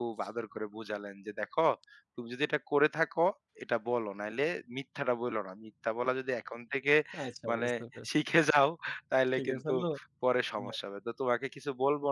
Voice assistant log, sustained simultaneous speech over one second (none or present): none